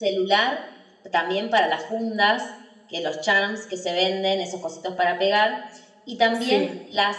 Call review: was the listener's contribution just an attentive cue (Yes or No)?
Yes